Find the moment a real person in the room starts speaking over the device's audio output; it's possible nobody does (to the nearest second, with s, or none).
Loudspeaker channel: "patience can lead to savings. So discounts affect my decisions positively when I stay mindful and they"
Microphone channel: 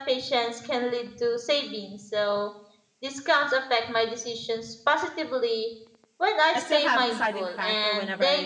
7 s